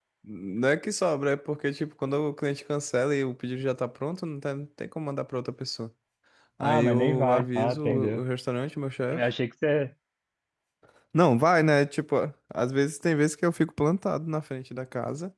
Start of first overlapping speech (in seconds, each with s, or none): 6.6 s